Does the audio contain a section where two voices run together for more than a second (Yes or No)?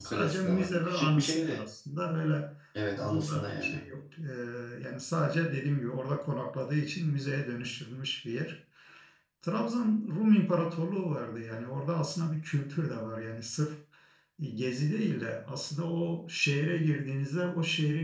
Yes